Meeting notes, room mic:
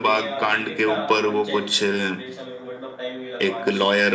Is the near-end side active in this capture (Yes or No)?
Yes